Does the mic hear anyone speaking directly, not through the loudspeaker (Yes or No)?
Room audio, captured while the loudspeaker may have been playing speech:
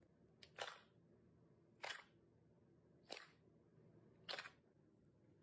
No